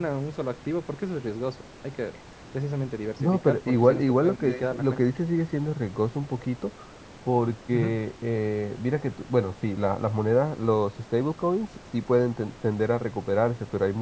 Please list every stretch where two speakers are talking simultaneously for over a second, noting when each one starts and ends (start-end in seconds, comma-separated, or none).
3.2-5.0